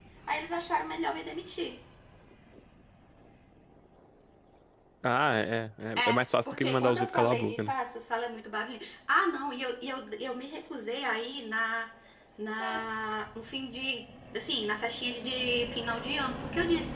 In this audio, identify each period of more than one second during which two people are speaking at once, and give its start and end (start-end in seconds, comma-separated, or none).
6.0-7.7